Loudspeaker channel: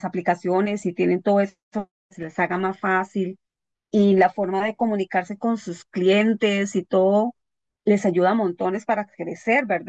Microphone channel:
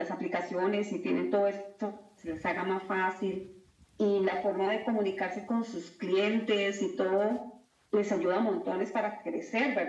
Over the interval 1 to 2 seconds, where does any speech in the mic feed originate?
echo only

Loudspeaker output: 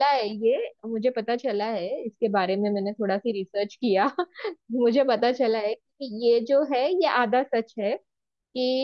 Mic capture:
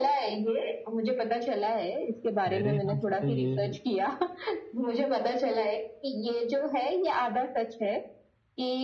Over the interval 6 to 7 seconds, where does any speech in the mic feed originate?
echo only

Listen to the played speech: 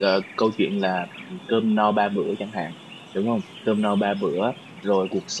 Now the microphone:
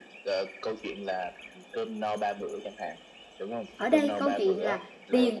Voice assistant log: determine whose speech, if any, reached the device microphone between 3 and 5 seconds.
both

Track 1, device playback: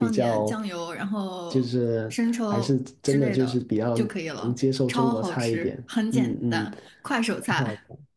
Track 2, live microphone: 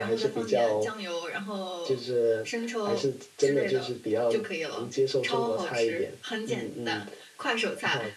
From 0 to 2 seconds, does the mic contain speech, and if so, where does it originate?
echo only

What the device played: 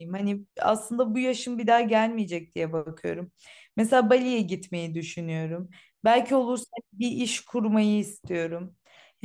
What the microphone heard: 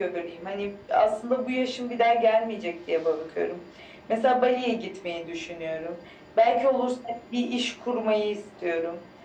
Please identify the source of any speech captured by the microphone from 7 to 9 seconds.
echo only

